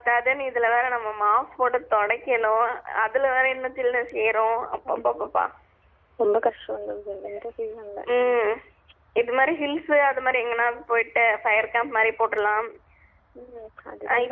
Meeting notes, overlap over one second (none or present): none